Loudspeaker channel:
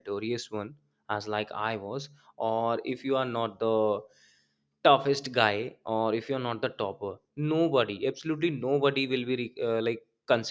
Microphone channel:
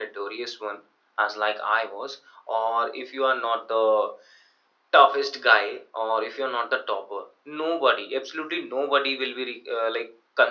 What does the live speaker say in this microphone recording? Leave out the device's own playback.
none

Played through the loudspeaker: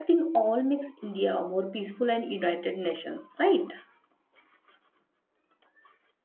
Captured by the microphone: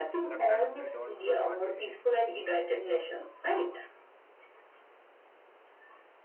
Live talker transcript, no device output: sometimes we don't want to eat

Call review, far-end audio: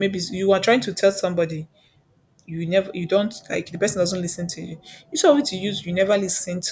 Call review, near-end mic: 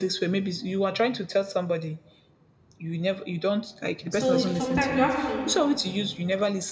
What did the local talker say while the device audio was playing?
So it's sometimes you have to

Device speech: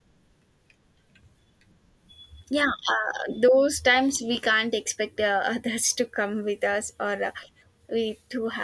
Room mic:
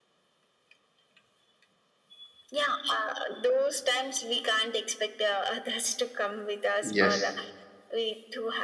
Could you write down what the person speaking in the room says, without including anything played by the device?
yes,

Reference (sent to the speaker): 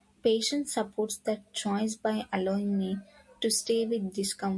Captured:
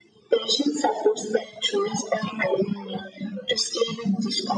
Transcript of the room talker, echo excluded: none

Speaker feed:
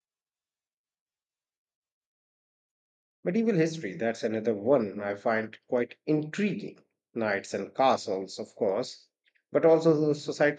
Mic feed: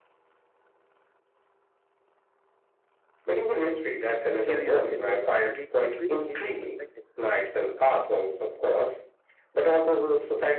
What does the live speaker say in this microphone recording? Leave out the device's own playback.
a few years ago, and it completely changed my perspective.

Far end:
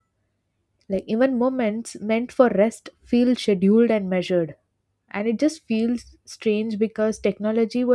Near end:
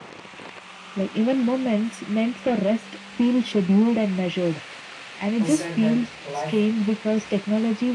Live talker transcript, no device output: who said that life

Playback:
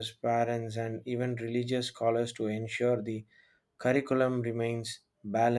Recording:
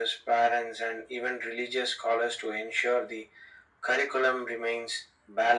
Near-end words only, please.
none

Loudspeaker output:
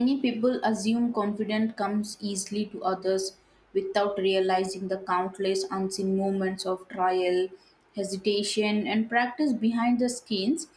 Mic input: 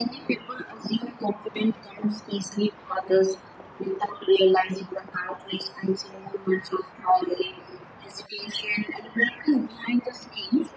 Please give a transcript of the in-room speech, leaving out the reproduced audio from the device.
none

